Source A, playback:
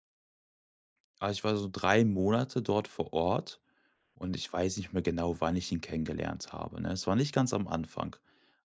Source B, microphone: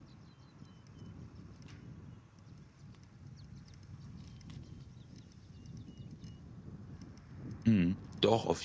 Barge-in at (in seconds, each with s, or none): 7.7 s